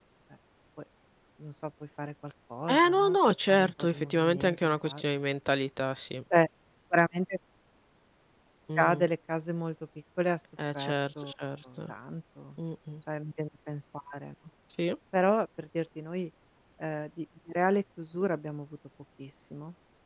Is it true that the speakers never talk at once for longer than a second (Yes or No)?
No